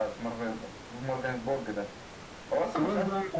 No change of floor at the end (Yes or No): No